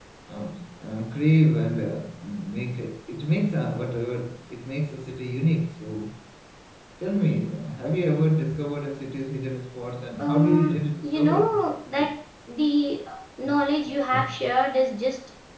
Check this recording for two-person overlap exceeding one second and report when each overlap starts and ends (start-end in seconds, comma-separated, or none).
10.2-11.5